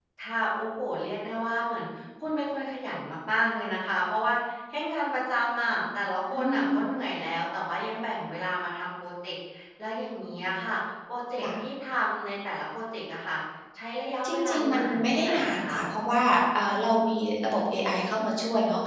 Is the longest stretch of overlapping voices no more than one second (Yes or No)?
No